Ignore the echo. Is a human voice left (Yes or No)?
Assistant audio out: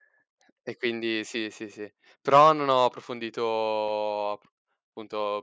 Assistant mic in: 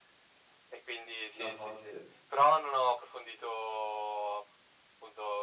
Yes